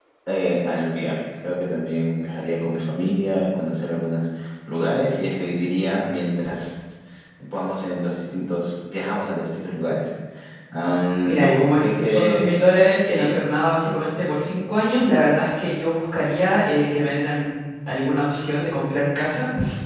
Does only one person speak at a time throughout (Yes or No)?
No